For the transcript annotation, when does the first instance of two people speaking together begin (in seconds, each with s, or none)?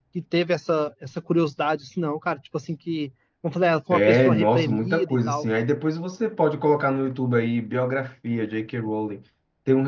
3.9 s